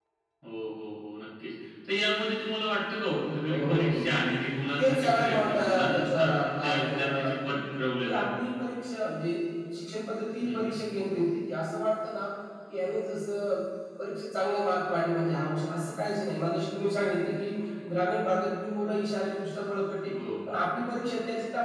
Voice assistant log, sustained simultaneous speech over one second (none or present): present